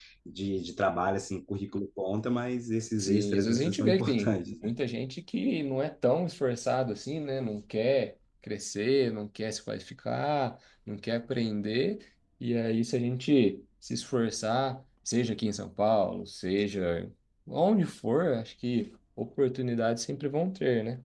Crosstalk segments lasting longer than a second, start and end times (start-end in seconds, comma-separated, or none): 3.0-4.7